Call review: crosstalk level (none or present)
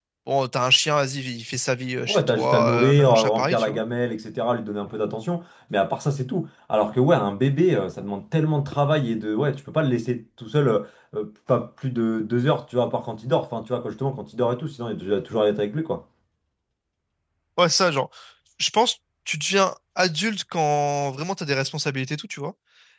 present